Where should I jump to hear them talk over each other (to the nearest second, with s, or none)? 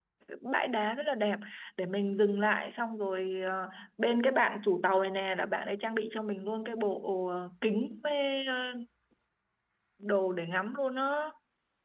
none